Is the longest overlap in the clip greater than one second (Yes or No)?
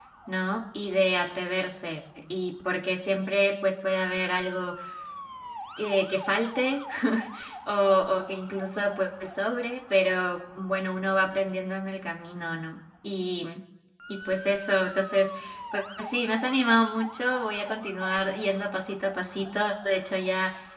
No